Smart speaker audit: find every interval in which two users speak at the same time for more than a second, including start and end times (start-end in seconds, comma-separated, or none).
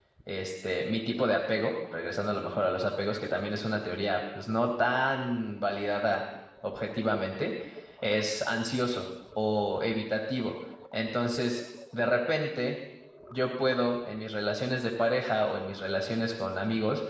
none